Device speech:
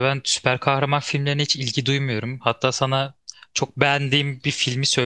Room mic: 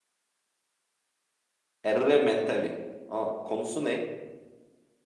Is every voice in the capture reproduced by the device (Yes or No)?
No